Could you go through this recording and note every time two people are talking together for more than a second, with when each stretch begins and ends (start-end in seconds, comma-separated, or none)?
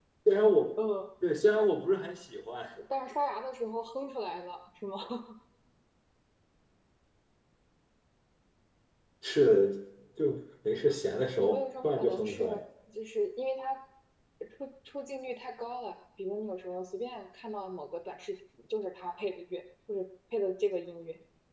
11.4-12.6